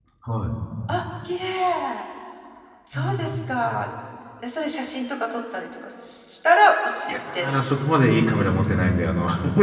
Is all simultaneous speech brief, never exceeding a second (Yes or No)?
Yes